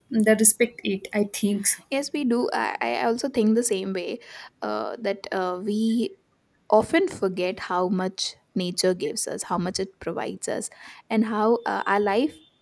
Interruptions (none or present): none